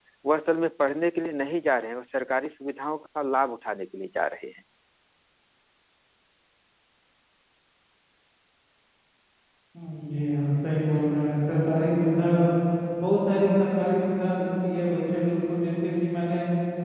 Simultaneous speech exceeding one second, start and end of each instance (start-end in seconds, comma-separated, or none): none